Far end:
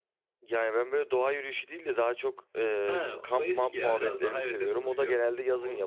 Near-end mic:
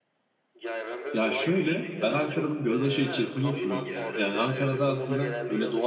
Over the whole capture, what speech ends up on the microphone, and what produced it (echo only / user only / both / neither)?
both